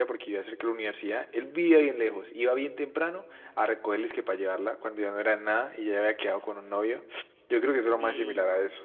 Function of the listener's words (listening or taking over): taking over